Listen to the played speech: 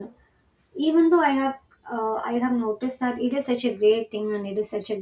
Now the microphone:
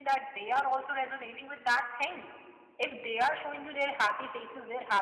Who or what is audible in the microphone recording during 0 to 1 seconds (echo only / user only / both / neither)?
user only